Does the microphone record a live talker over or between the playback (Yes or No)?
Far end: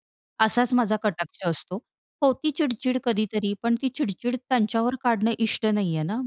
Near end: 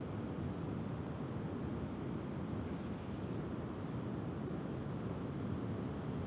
No